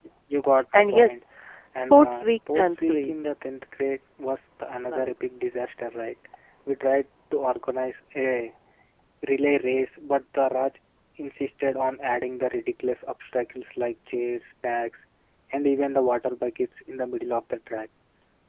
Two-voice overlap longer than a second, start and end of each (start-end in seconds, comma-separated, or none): 1.9-3.1